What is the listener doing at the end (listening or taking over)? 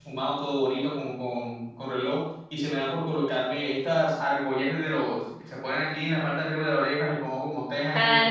listening